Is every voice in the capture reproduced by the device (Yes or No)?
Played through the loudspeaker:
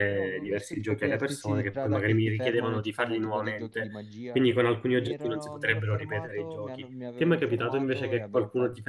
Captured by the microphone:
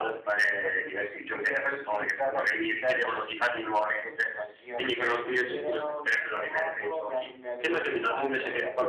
No